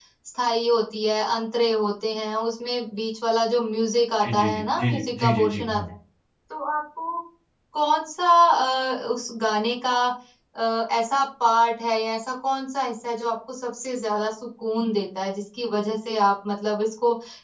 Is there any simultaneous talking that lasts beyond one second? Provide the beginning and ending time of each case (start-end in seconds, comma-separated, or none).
4.2-5.8